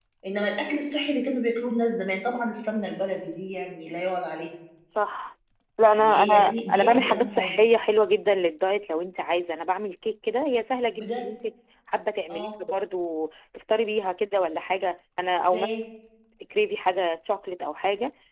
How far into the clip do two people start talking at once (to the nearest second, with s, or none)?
6 s